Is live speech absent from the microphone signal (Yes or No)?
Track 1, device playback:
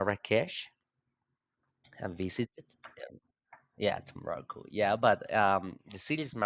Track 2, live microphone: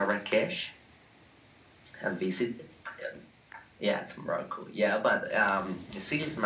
Yes